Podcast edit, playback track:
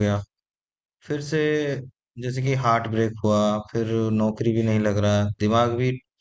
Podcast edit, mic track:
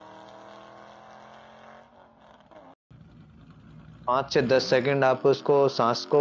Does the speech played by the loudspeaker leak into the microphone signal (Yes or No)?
No